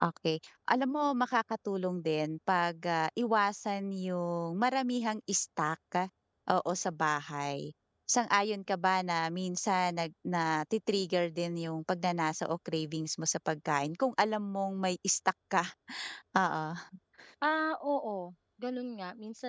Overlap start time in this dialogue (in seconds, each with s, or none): none